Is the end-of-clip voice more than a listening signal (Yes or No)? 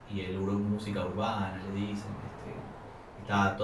Yes